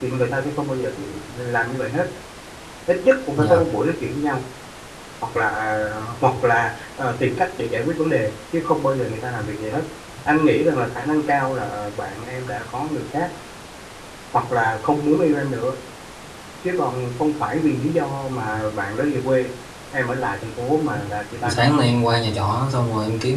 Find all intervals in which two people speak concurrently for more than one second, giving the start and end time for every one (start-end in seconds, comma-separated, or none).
none